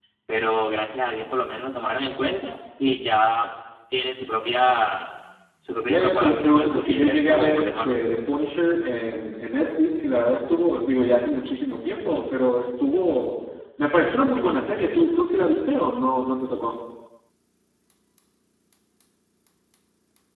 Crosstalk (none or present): present